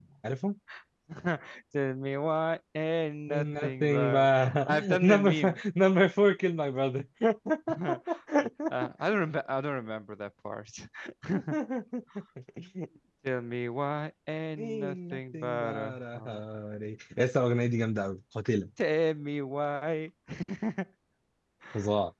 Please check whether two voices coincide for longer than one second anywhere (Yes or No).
Yes